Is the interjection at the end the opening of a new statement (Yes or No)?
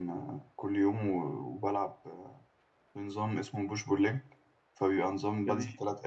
No